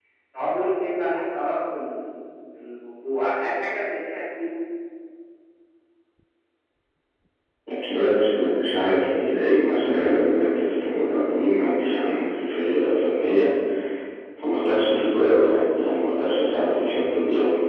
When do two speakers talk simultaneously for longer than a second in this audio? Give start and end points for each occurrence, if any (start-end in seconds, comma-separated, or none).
none